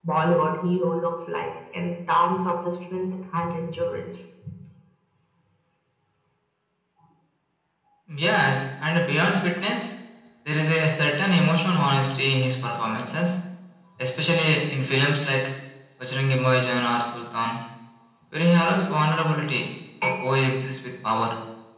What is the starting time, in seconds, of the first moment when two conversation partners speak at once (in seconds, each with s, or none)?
none